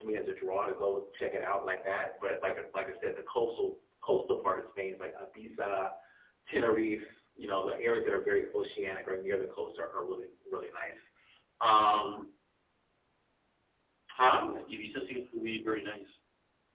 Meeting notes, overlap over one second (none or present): none